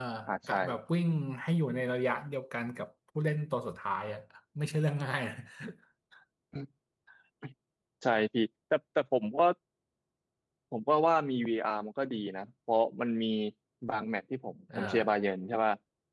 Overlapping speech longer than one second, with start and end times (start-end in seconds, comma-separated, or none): none